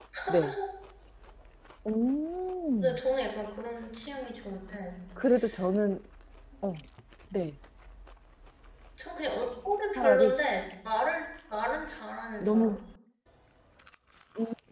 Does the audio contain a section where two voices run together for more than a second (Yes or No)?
No